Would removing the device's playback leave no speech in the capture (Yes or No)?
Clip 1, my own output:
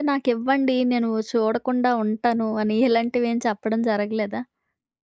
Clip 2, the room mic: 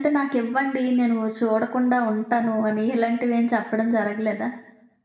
Yes